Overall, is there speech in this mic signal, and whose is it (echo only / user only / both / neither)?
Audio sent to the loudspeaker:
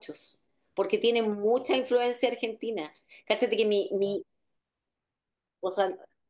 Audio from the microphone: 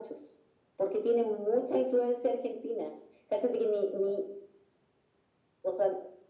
echo only